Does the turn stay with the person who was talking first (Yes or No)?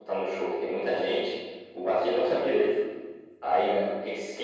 Yes